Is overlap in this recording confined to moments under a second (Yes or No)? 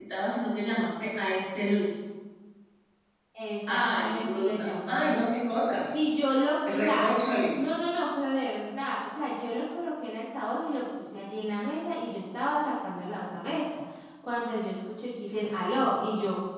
No